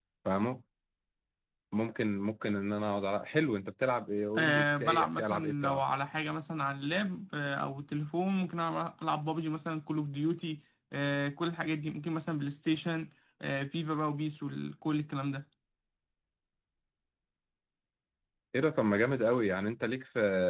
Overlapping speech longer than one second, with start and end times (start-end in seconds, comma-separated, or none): 4.4-5.8